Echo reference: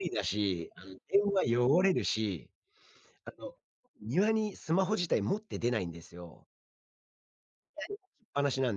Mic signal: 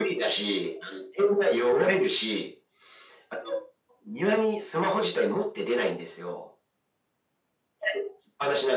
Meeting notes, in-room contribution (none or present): none